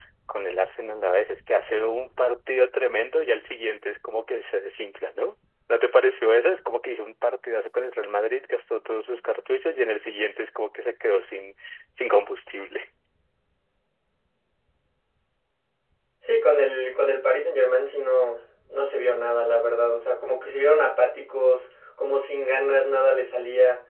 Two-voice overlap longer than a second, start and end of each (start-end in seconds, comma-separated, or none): none